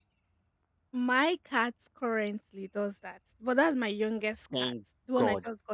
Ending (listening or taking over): taking over